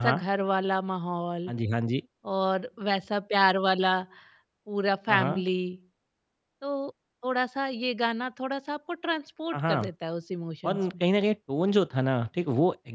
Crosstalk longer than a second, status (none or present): none